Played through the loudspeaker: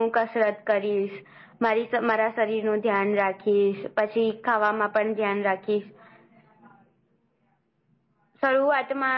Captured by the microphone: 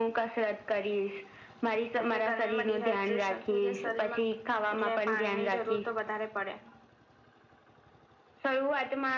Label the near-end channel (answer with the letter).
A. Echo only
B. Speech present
B